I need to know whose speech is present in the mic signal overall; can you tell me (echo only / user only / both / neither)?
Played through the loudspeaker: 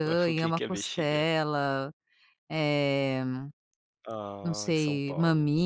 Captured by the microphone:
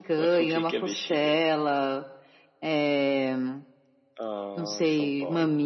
echo only